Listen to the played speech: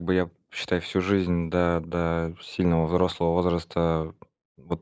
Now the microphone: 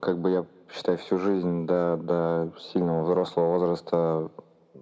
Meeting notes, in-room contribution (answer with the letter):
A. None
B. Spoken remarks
A